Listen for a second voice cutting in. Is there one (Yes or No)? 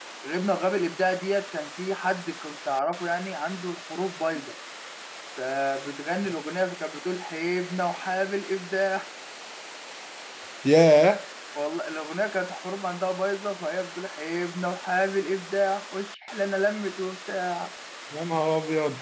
No